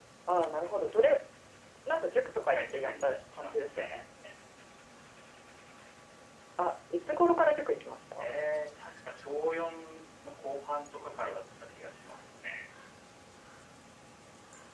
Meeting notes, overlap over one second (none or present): present